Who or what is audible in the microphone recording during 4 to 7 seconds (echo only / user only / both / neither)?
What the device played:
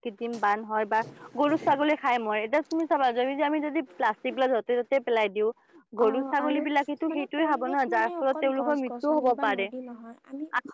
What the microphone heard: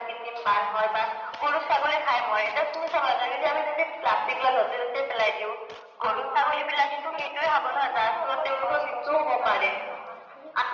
echo only